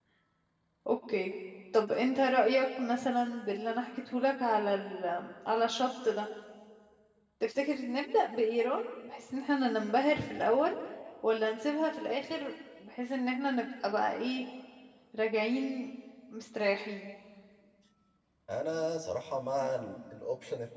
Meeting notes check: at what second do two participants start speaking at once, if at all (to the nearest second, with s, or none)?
none